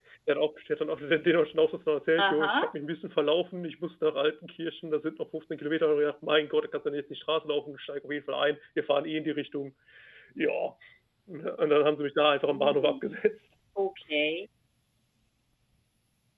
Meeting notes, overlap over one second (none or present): none